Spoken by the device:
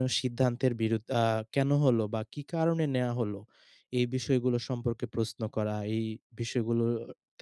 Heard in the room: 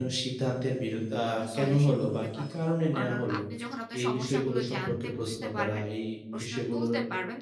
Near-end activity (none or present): present